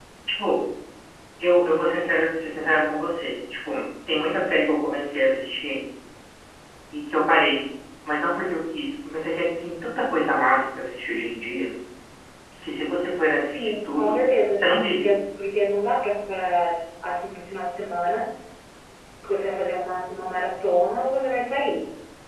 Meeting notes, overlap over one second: present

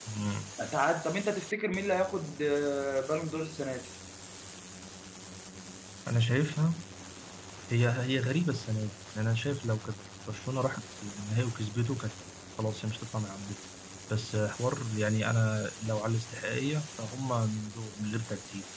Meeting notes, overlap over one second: none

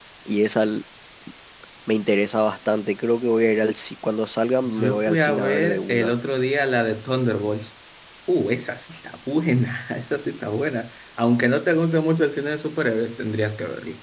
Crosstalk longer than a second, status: present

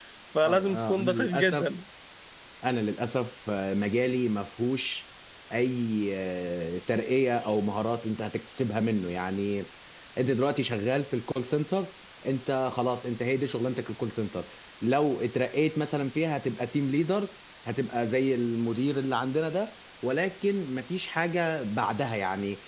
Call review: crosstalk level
present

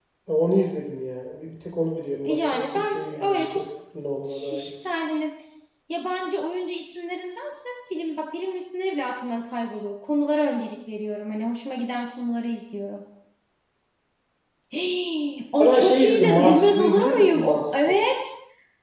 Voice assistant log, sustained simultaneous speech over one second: present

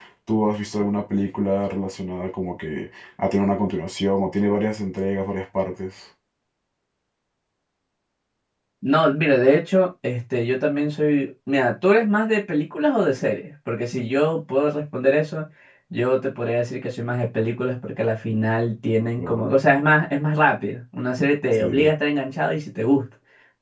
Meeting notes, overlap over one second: none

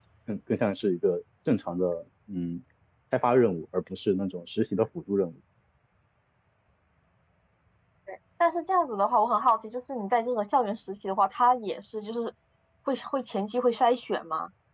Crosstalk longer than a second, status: none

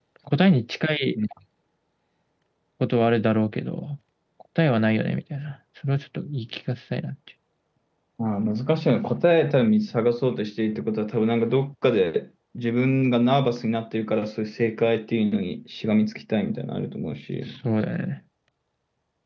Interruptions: none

